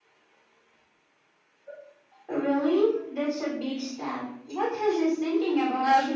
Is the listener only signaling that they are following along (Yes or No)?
No